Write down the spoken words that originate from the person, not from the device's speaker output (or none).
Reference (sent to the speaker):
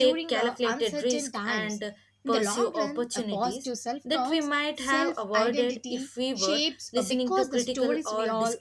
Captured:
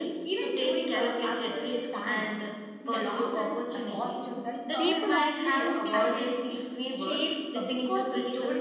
people often notice